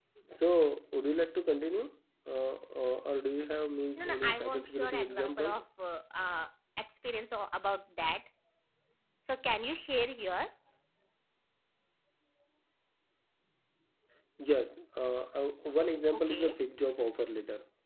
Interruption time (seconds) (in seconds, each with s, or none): 4.0 s